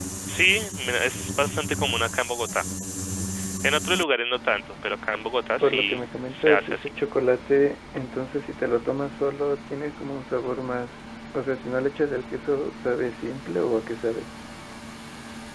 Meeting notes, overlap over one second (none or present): present